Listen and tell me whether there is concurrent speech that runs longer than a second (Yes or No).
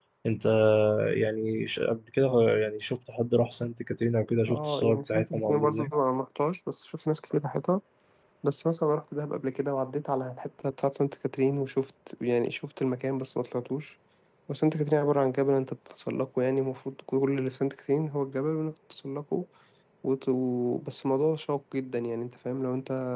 Yes